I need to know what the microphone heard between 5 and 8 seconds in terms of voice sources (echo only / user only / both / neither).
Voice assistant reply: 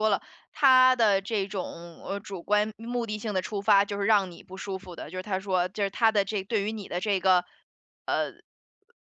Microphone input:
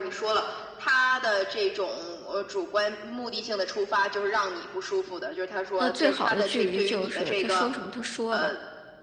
both